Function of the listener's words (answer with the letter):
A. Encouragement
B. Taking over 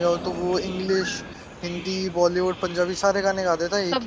B